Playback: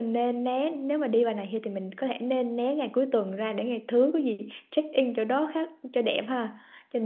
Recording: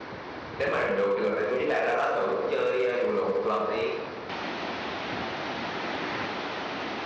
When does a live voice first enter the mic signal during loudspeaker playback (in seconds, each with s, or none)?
0.6 s